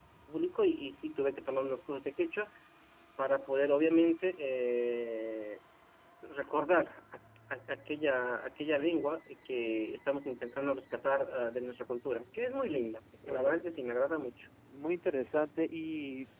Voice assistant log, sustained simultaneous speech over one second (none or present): none